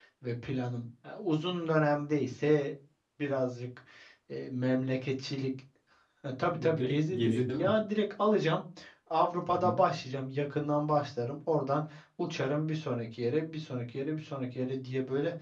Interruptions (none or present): present